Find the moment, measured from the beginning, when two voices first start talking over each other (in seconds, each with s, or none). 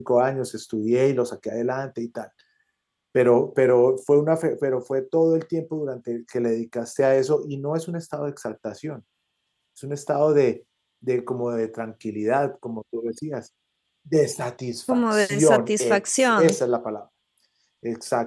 14.9 s